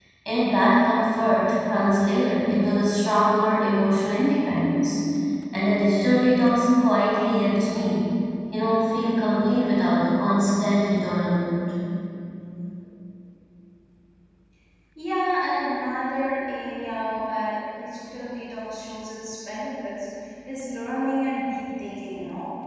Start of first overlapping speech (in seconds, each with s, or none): none